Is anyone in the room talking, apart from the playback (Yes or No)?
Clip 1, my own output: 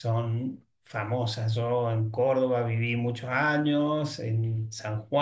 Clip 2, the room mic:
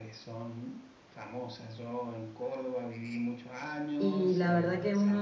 Yes